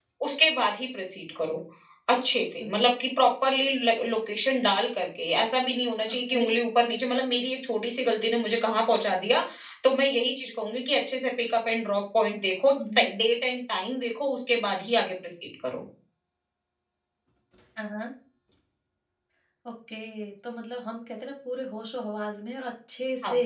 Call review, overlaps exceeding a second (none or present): none